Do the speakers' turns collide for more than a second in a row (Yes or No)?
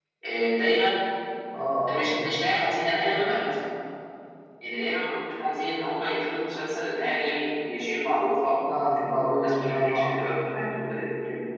Yes